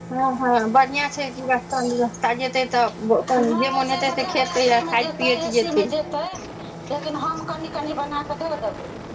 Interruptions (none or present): present